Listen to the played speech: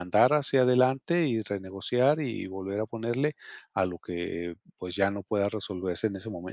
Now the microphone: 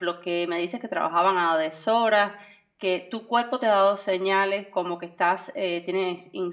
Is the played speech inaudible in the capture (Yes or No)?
Yes